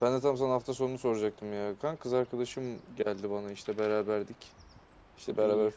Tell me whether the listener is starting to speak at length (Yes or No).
No